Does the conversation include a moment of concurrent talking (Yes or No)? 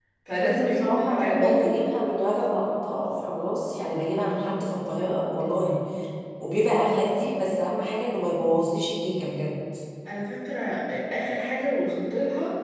Yes